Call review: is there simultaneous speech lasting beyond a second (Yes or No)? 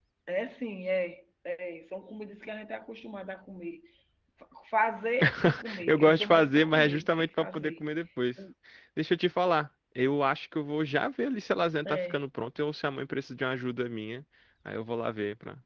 Yes